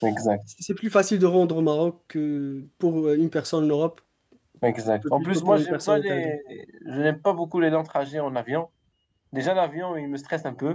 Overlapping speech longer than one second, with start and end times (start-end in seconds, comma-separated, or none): 5.0-6.3